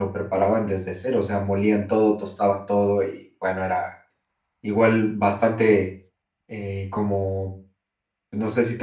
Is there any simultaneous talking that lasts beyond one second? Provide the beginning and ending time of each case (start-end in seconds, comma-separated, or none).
none